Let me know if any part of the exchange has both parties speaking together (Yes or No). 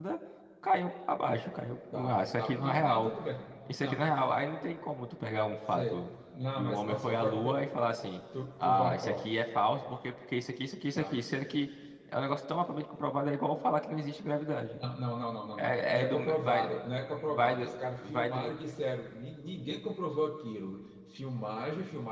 Yes